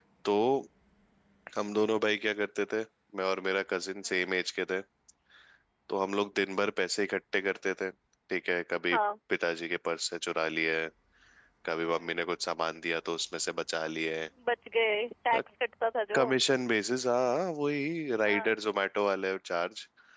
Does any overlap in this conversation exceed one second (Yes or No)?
No